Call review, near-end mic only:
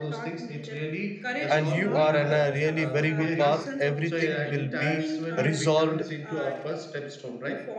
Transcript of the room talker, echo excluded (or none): and you are on a really very good path everything will be resolved